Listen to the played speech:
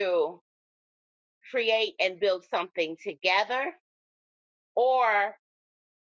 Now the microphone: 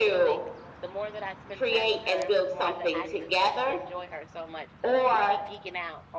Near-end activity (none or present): present